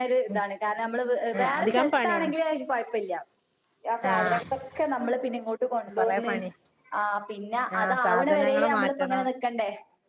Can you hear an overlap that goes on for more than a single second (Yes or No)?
Yes